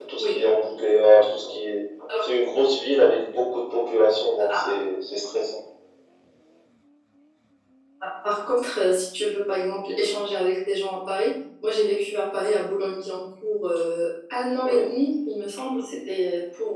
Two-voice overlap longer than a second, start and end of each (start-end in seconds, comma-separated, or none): none